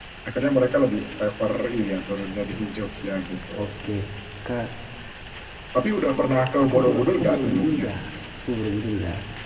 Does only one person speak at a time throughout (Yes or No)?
No